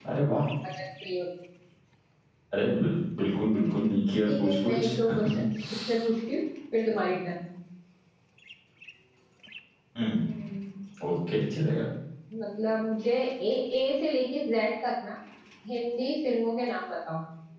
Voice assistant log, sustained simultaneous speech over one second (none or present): present